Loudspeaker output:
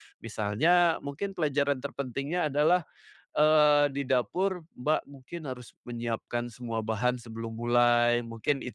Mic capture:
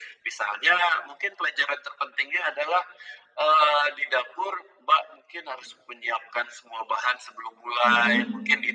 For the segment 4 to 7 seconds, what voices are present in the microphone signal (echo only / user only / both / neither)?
echo only